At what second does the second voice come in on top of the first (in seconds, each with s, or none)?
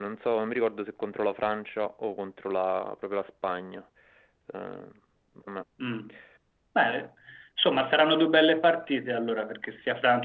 none